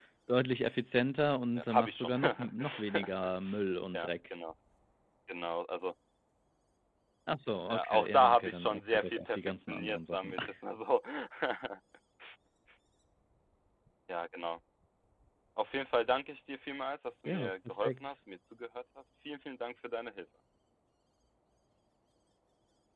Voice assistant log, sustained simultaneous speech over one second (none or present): present